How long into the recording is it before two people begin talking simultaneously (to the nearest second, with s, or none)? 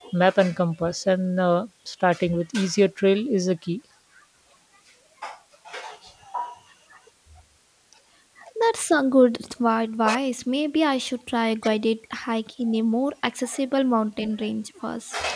none